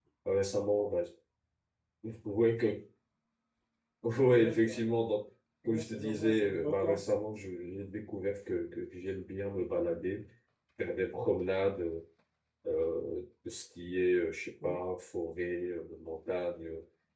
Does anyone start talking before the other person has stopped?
Yes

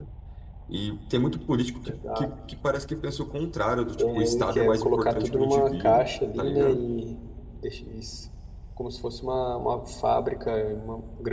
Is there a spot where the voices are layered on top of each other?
Yes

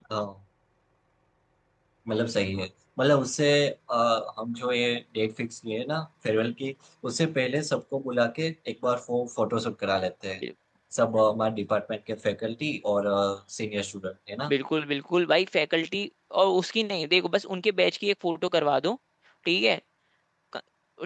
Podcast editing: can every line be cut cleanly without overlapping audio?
Yes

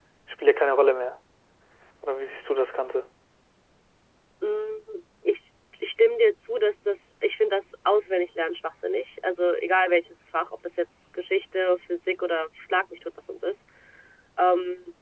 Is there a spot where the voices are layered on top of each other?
No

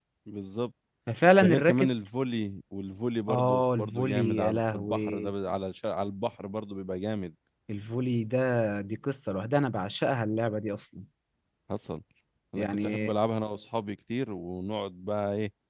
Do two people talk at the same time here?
Yes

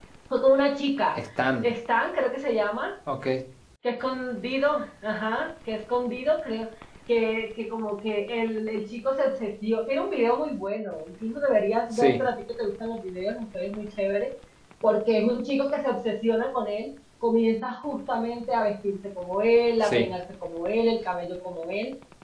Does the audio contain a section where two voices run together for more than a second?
No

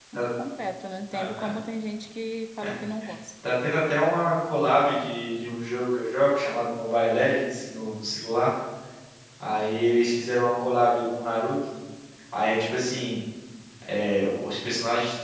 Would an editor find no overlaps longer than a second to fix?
Yes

